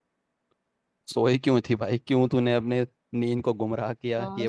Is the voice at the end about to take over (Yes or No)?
Yes